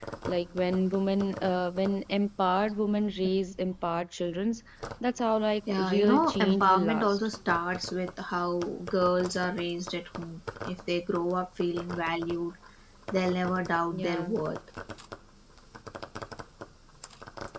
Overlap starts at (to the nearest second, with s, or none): 6 s